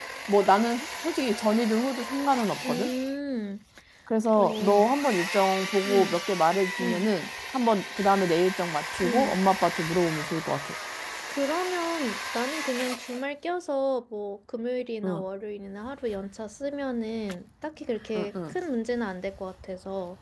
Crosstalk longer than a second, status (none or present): none